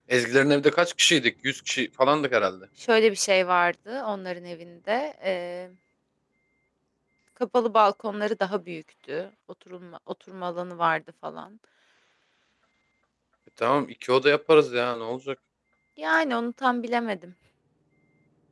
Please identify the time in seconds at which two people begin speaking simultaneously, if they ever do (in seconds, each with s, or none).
none